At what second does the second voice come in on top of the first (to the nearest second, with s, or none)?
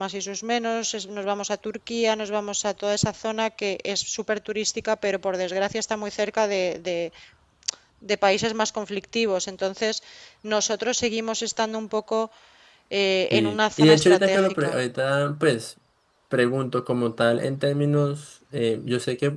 13 s